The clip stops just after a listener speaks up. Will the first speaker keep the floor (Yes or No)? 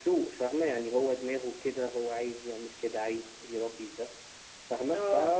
Yes